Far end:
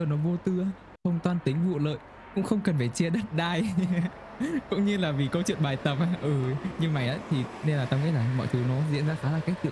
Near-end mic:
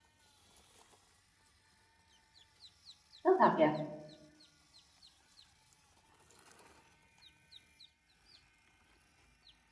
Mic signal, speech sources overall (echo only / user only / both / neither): user only